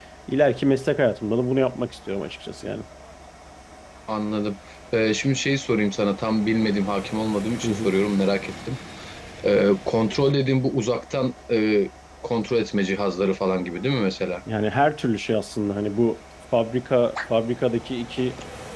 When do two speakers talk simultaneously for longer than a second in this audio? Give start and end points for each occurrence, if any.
none

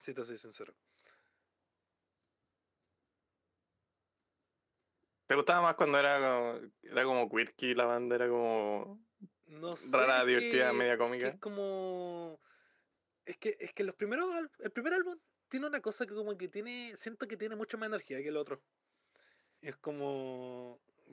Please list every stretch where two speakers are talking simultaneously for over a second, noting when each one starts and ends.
9.9-11.3

